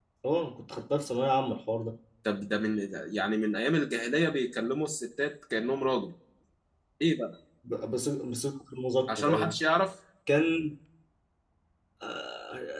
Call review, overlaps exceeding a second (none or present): none